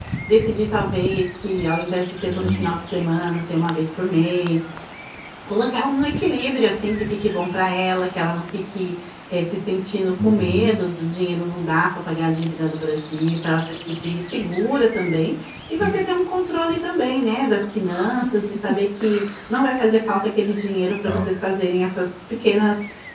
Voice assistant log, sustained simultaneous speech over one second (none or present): none